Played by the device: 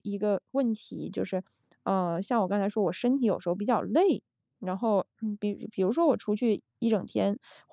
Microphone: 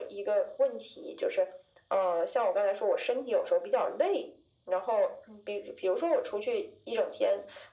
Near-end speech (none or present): none